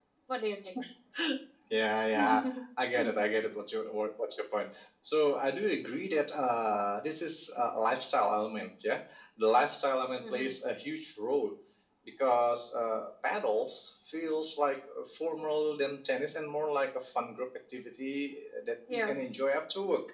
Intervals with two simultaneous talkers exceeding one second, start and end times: none

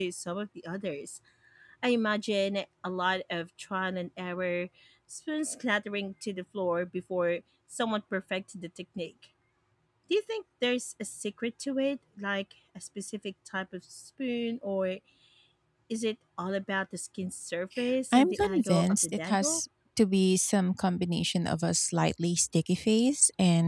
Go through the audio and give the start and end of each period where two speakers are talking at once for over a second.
18.1-19.6

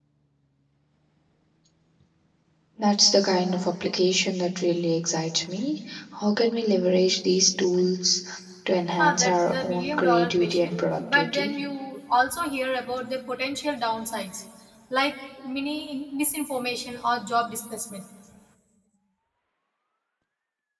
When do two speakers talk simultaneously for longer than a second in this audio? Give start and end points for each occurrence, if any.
8.9-11.5

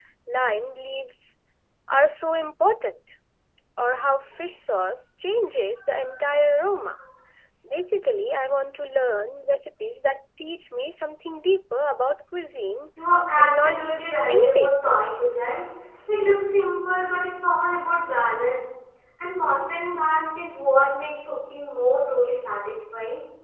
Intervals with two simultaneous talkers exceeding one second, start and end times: 13.4-15.0

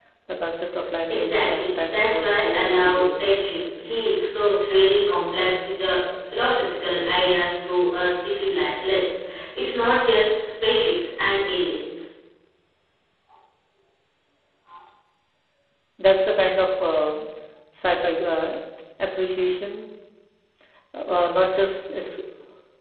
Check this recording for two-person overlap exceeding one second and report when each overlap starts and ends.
1.1-3.3

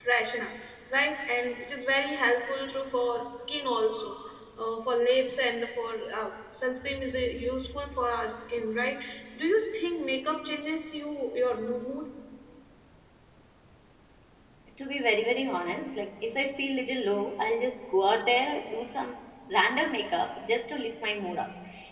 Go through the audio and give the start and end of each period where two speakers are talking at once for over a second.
none

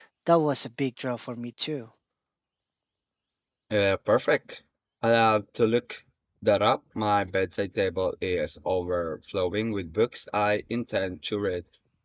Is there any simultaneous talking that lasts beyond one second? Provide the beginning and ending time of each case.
none

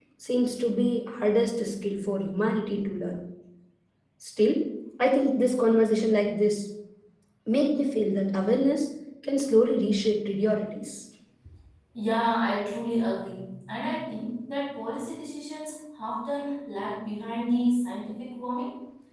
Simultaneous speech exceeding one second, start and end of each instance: none

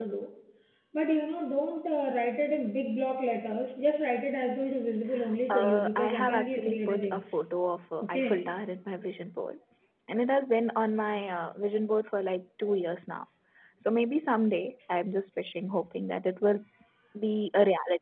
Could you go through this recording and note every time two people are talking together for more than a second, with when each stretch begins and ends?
5.5-7.2

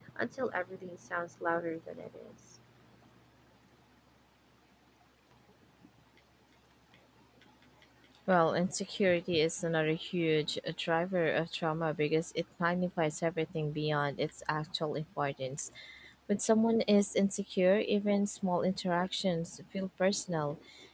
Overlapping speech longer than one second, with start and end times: none

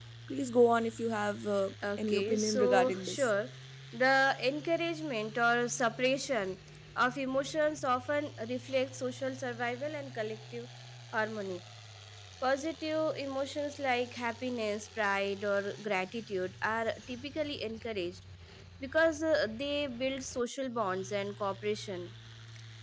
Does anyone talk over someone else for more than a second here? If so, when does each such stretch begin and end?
2.0-3.3

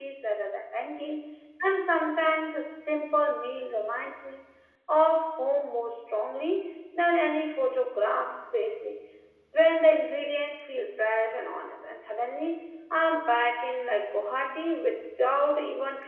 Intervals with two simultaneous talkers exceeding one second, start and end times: none

